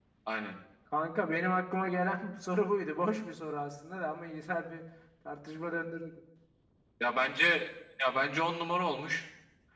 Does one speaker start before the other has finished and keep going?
No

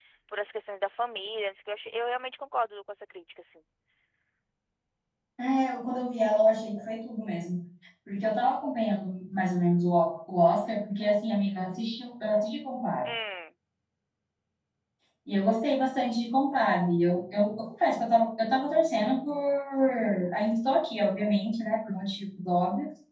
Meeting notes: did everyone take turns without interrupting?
Yes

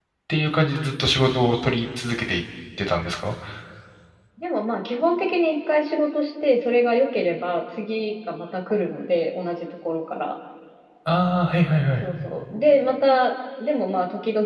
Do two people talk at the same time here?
No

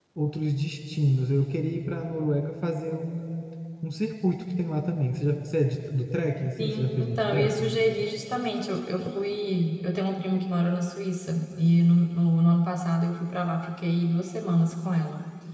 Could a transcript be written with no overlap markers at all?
No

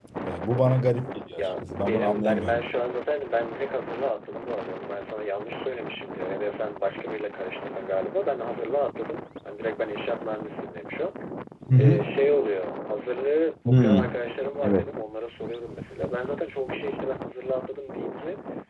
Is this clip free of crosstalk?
No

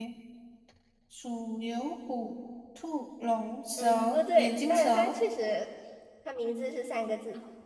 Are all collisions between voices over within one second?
No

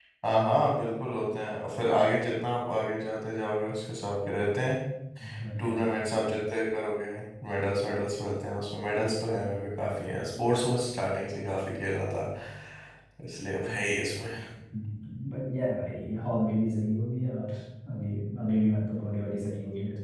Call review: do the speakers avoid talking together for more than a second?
Yes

